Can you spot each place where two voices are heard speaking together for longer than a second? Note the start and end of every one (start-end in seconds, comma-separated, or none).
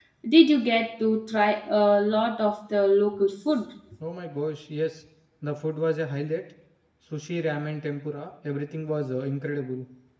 none